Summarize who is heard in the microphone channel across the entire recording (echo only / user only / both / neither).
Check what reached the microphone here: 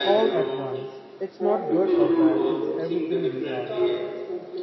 both